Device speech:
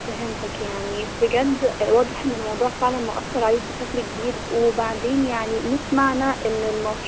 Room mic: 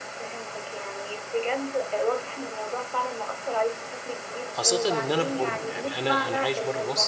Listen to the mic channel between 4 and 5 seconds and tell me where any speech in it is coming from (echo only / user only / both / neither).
both